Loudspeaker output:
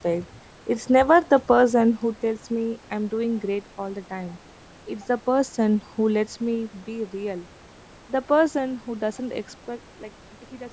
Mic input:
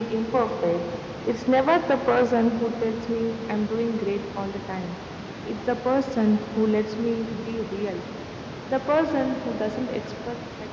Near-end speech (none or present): none